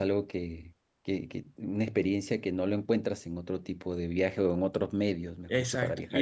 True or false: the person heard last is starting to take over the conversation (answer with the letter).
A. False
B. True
B